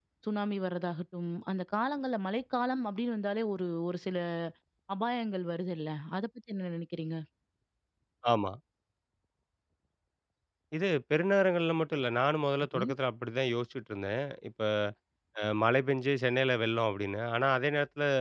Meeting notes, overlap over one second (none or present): none